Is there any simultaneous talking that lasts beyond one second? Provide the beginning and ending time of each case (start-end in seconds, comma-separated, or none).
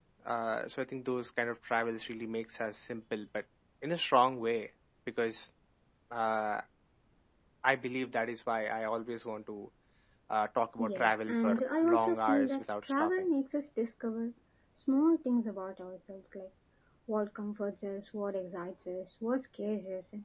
10.9-13.3